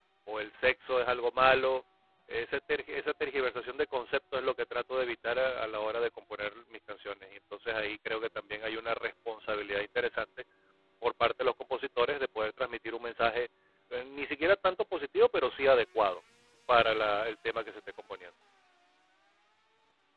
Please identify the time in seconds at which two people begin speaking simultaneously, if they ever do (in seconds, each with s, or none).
none